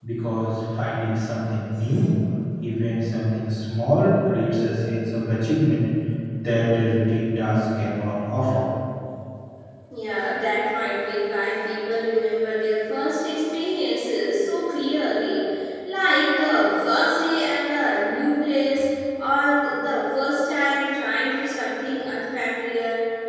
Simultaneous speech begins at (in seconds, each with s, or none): none